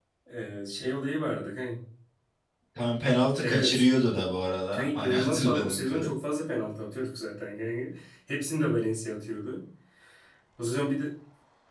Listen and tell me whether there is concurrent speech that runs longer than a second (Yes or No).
Yes